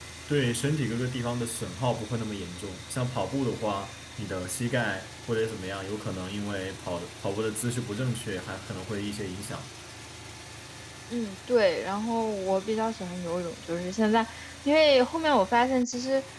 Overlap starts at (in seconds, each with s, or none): none